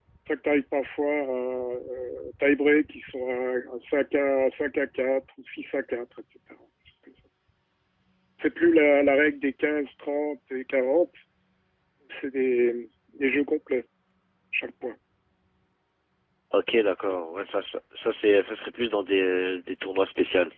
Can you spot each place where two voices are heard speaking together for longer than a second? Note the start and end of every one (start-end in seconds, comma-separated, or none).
none